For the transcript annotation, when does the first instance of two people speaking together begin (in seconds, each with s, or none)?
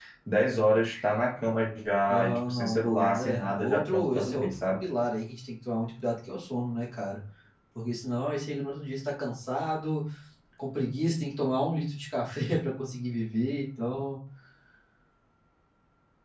2.1 s